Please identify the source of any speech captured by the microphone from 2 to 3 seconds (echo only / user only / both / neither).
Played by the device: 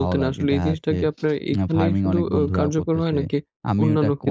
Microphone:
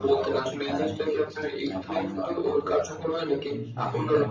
both